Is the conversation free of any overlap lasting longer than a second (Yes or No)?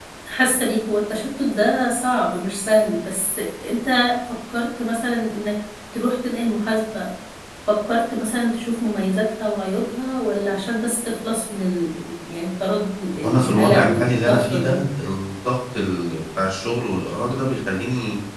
No